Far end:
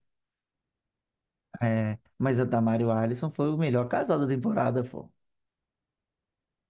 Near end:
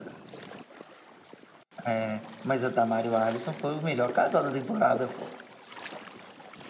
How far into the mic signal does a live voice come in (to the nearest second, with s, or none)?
none